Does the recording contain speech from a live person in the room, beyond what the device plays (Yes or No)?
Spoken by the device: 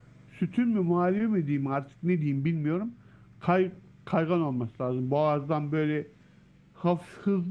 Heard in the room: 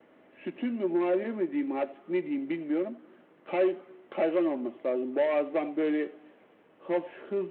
No